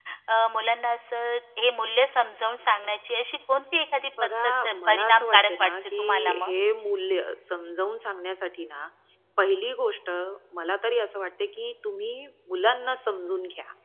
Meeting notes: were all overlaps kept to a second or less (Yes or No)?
No